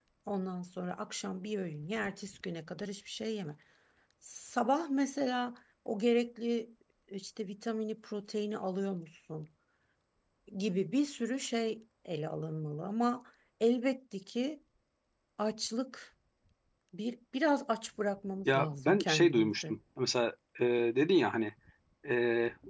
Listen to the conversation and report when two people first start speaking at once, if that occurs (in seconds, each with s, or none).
18.4 s